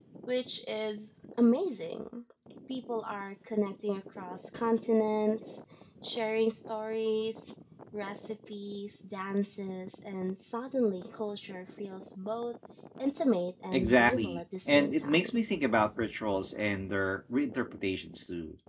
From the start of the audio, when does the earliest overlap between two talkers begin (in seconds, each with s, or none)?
13.7 s